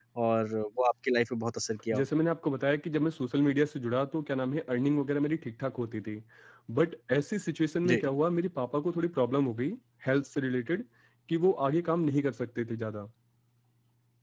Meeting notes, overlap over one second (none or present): none